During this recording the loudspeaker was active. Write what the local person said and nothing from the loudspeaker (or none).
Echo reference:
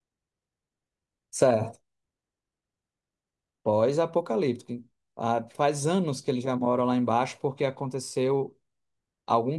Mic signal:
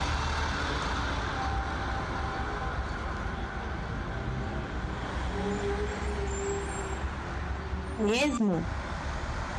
mesmo?